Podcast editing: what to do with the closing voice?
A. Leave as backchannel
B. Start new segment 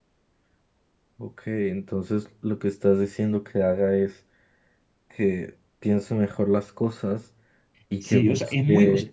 B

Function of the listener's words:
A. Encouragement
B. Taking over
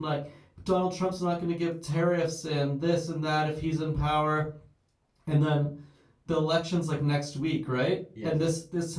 A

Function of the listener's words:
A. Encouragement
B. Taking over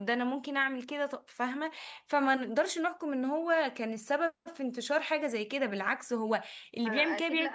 B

